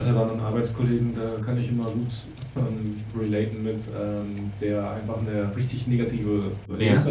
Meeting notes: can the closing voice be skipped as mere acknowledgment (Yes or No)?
Yes